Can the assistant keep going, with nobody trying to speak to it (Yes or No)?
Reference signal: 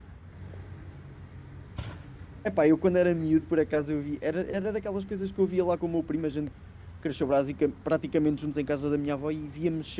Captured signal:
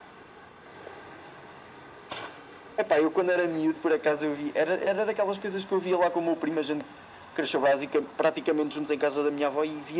Yes